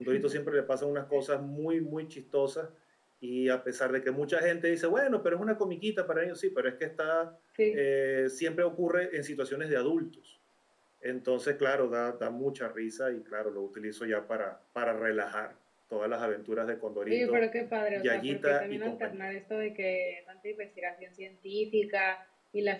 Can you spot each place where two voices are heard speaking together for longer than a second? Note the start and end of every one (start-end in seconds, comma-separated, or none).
17.9-19.2